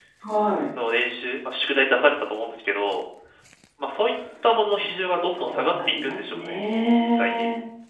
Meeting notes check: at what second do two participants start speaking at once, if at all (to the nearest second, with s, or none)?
5 s